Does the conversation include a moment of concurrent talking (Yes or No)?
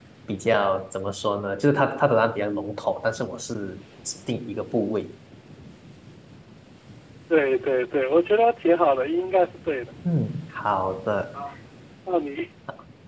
No